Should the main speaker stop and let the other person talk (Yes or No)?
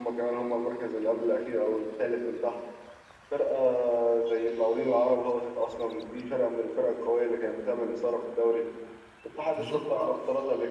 No